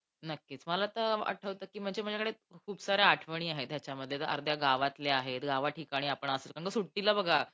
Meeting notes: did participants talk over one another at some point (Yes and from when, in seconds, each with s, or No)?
No